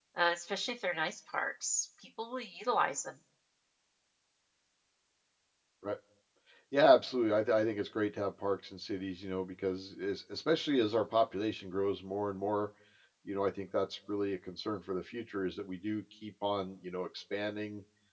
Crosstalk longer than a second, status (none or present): none